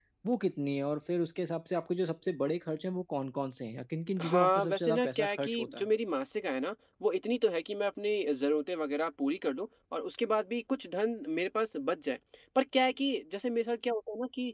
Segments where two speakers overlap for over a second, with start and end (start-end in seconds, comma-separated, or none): 4.2-5.8